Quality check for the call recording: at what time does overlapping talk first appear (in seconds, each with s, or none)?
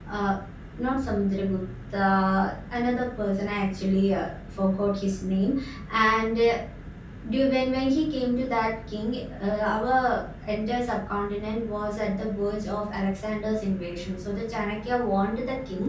none